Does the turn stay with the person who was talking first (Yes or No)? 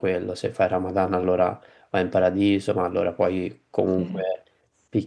Yes